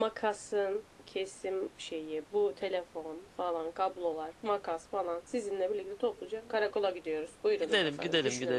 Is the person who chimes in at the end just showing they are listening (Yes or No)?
No